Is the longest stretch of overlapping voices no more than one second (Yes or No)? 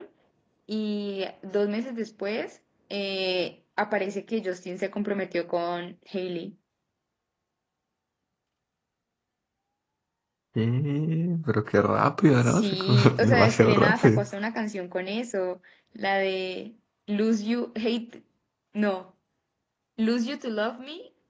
No